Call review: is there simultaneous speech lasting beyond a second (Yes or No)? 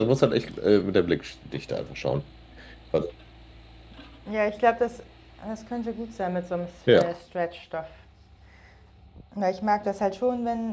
No